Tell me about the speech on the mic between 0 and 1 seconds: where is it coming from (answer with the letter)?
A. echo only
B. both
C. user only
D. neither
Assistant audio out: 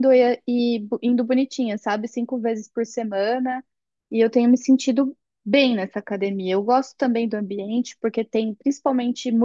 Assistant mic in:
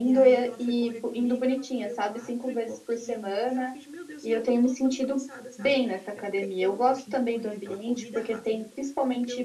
B